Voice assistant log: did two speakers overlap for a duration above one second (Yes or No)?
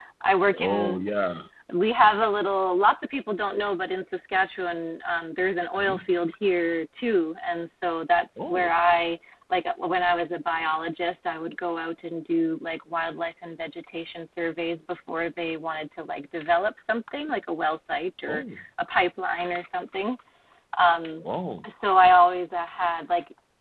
No